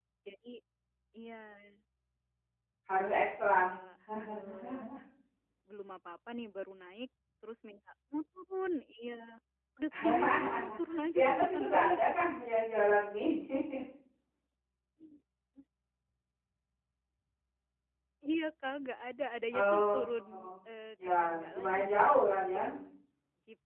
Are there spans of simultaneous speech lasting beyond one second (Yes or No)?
Yes